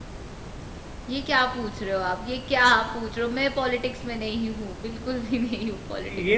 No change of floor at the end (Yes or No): No